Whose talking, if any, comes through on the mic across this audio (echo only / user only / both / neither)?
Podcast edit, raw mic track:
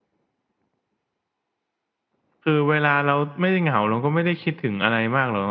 user only